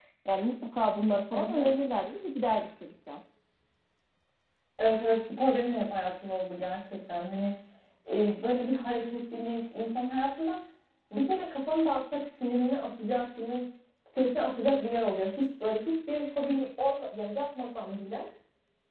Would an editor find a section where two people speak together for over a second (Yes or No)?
No